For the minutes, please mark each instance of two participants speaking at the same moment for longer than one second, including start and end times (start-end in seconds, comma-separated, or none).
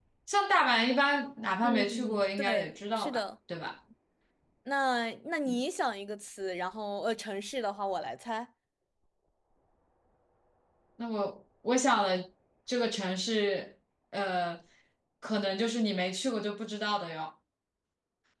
1.6-3.2